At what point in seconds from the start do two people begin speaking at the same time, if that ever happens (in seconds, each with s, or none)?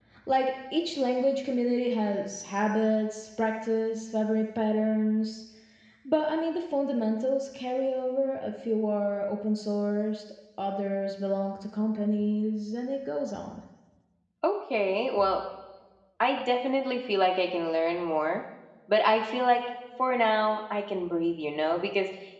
none